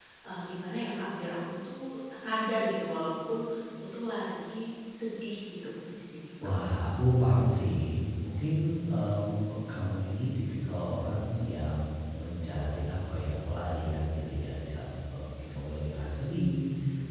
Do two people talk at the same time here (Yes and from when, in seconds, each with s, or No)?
No